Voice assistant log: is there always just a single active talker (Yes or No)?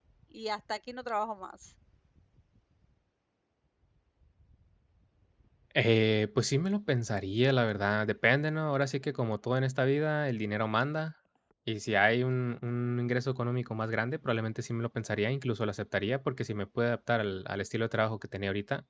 Yes